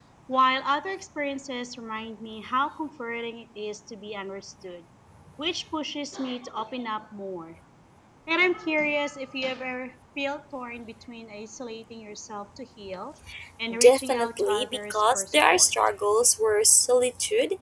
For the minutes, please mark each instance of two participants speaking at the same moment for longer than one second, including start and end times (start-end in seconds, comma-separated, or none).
13.8-15.7